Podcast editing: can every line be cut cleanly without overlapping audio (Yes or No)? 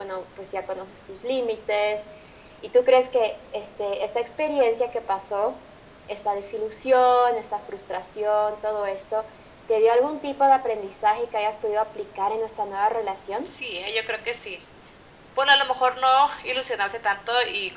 Yes